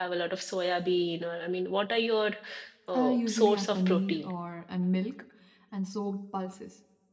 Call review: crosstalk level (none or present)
present